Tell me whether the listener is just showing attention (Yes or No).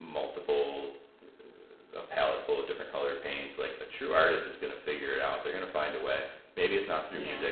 Yes